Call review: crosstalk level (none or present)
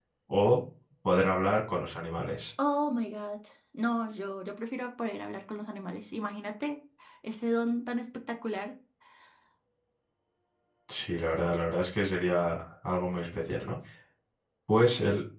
none